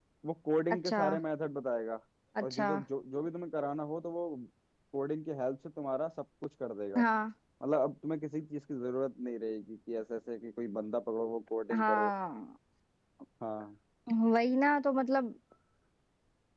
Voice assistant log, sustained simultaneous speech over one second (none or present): none